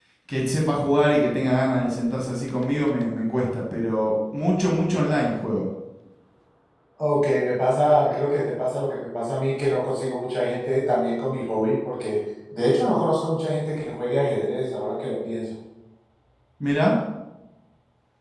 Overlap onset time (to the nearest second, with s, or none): none